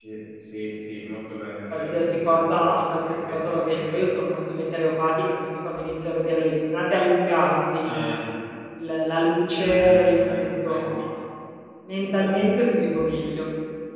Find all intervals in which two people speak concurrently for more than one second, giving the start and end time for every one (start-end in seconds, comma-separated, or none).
1.7-4.0, 9.6-10.8